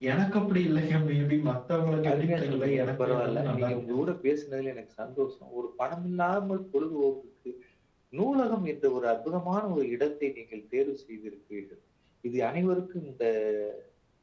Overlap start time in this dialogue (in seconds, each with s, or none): 2.0 s